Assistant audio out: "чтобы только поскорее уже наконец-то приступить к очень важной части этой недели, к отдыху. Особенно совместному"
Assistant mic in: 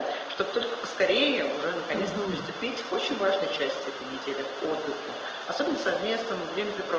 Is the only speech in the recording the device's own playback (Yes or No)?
No